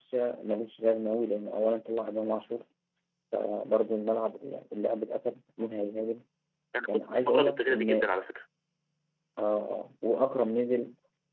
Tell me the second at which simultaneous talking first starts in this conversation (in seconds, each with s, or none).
6.9 s